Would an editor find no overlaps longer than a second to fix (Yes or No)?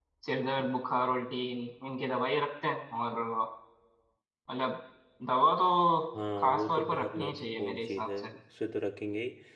No